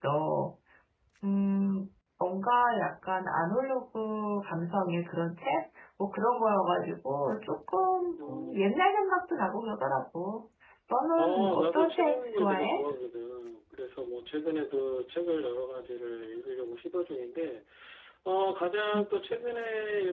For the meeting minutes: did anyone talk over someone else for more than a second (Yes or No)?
Yes